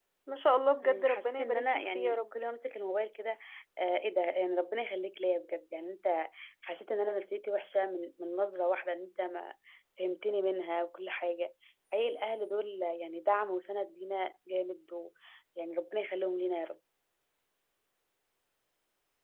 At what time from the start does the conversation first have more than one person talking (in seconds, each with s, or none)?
0.8 s